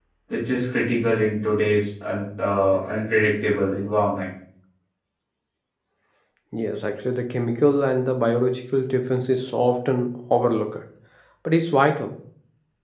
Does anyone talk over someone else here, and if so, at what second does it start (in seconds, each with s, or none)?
none